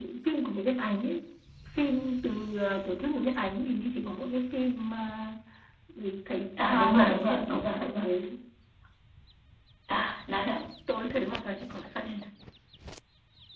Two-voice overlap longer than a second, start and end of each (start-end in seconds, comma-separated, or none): 6.6-8.0